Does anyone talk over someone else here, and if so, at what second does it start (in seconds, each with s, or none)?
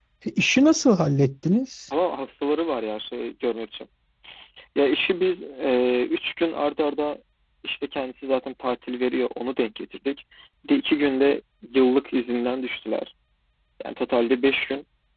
none